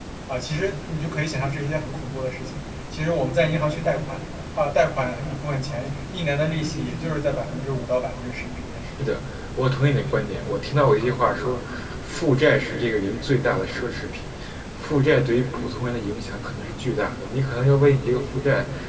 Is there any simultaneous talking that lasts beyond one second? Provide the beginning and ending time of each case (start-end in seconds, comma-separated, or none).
none